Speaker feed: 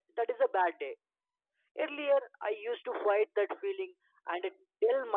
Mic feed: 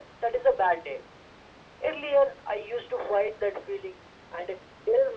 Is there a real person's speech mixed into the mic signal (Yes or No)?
No